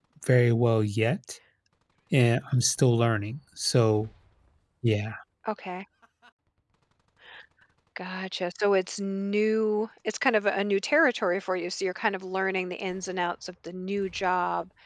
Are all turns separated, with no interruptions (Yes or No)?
Yes